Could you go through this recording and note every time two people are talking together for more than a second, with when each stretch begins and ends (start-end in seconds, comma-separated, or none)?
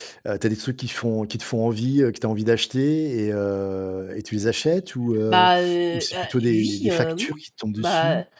5.9-7.3